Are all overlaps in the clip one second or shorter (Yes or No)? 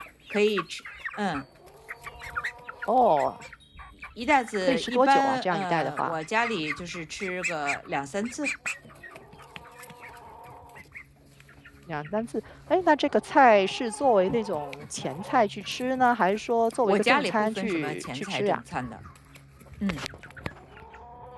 No